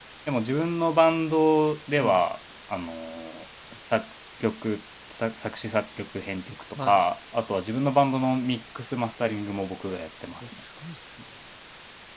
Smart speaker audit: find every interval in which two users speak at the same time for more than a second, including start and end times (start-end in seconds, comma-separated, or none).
none